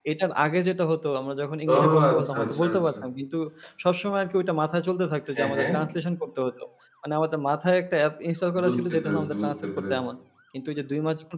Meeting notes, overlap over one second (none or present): present